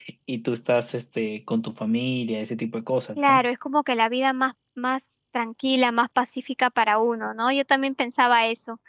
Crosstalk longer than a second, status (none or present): none